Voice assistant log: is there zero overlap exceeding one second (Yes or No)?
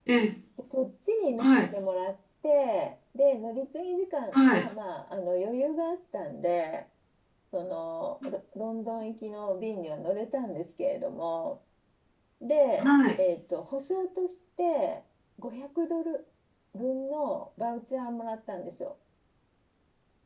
Yes